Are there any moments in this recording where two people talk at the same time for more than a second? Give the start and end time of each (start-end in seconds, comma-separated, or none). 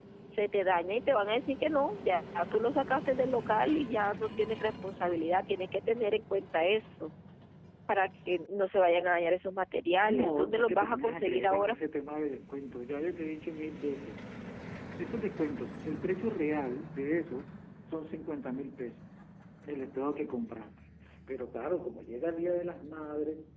10.0-11.8